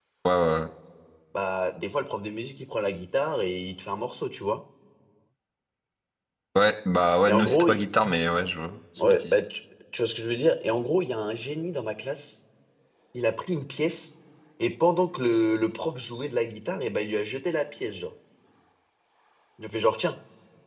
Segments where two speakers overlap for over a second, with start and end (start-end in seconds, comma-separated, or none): none